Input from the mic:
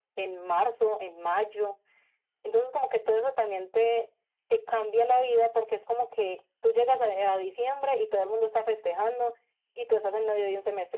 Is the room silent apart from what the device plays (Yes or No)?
Yes